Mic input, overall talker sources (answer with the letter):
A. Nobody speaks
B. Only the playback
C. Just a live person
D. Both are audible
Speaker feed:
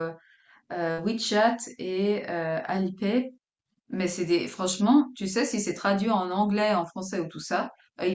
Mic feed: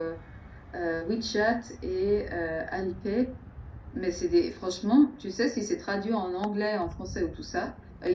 B